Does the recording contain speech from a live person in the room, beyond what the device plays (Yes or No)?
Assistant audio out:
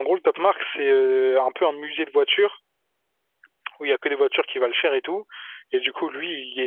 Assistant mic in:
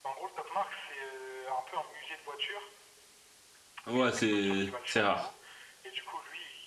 Yes